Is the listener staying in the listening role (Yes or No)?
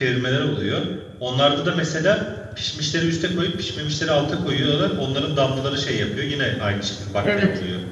No